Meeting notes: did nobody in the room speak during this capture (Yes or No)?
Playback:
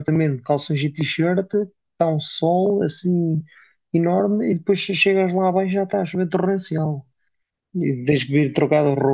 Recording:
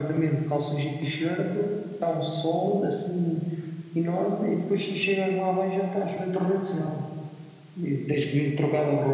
Yes